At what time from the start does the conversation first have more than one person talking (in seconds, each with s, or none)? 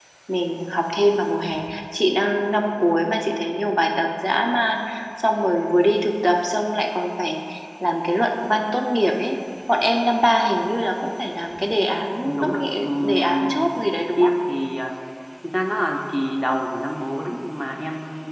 12.2 s